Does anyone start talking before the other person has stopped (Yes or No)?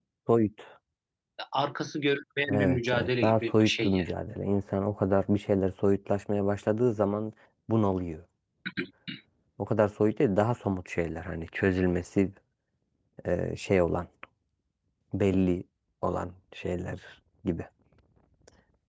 Yes